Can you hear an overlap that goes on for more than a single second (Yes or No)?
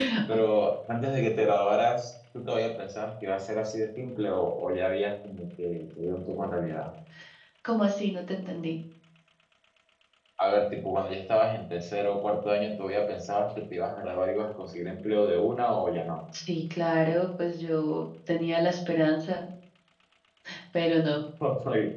No